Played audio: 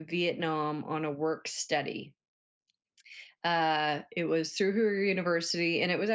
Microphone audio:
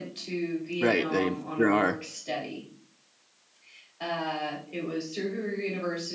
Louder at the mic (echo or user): user